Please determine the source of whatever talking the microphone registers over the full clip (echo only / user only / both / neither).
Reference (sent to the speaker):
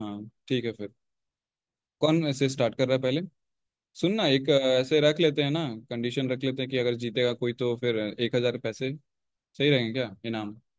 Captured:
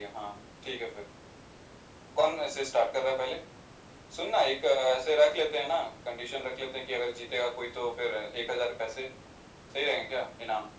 echo only